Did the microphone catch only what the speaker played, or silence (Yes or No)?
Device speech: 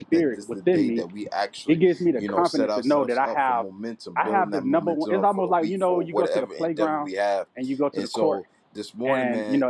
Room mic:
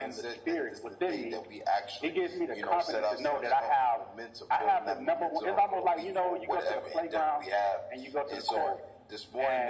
Yes